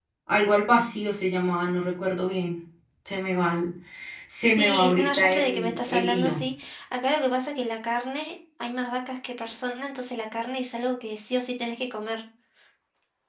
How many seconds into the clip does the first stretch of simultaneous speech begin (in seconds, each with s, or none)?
4.4 s